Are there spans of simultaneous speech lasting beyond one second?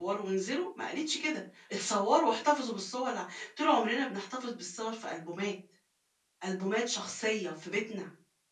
No

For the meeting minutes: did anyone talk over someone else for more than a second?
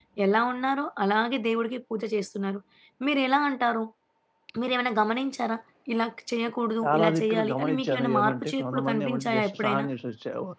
Yes, from 6.8 s

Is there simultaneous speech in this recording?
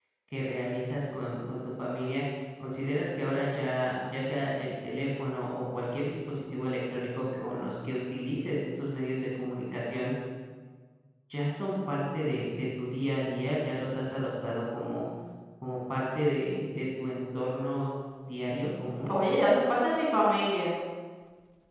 No

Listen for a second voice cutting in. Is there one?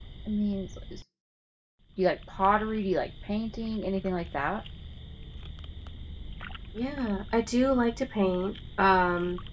No

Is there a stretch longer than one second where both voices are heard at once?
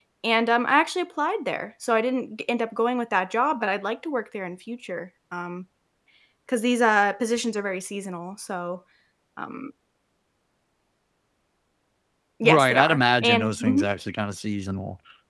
Yes, from 12.4 s

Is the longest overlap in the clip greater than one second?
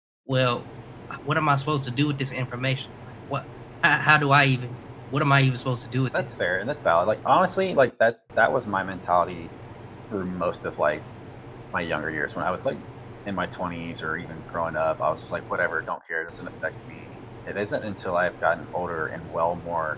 No

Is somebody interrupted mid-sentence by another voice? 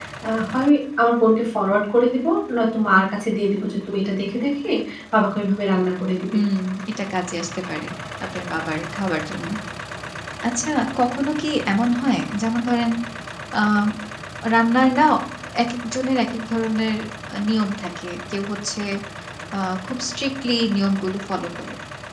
No

